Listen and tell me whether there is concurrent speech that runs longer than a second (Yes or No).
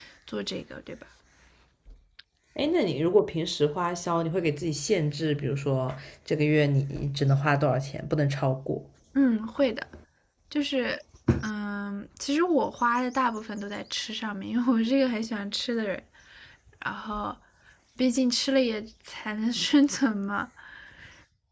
No